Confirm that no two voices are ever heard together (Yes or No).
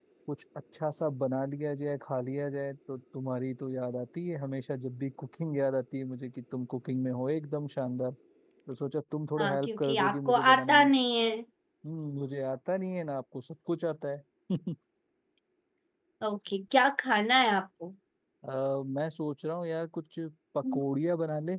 No